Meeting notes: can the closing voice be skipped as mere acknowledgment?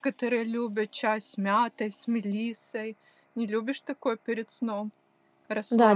No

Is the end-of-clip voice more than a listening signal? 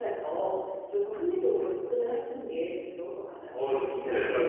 Yes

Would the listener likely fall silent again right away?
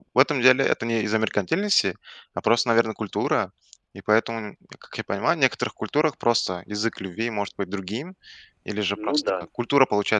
Yes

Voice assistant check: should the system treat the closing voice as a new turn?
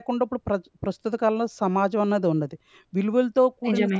No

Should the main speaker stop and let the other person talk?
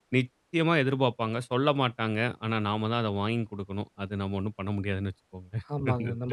Yes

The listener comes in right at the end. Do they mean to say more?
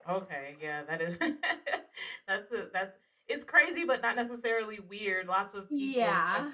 No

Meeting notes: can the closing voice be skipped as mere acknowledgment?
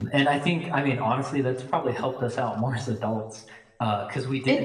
Yes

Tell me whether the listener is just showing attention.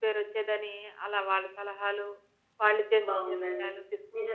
No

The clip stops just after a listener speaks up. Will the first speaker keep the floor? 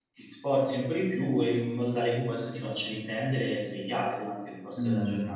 No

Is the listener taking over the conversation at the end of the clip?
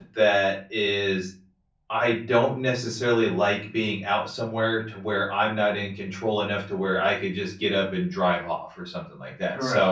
Yes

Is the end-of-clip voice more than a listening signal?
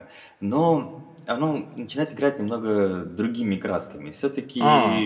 No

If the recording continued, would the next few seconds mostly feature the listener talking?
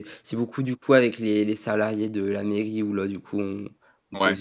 No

